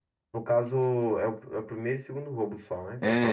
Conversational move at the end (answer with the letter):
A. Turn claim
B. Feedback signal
A